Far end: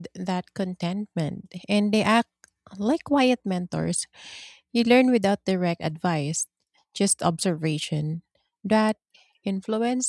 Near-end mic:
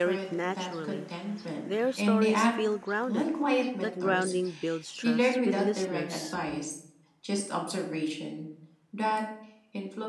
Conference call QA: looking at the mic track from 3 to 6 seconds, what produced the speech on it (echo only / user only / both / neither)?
both